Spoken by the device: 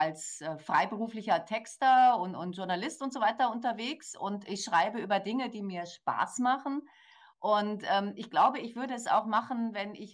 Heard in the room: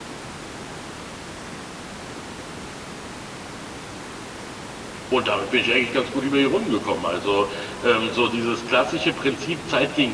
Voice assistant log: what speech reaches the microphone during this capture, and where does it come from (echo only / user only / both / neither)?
user only